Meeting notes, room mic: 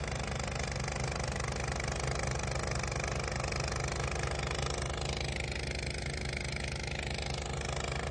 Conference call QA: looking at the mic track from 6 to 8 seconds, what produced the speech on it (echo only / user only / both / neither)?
neither